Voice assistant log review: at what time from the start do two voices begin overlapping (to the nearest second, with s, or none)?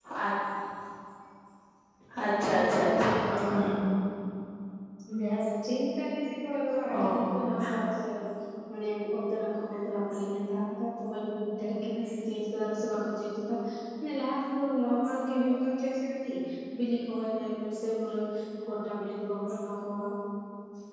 3 s